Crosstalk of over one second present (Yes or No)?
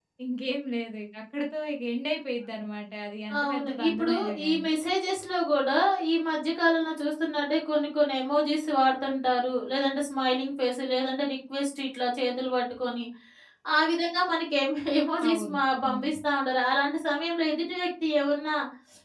Yes